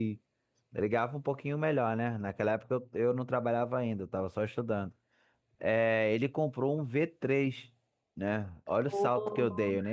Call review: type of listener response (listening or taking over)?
listening